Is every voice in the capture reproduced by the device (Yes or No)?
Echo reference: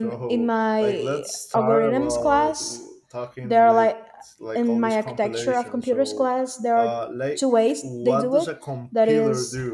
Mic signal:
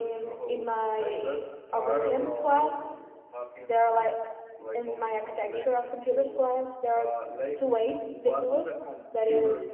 Yes